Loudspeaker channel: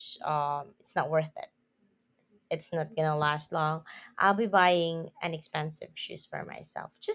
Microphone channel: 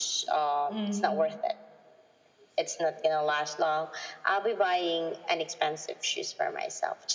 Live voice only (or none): Mm-hmm.